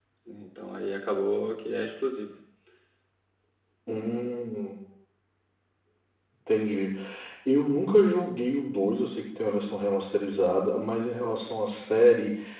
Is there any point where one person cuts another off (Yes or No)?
No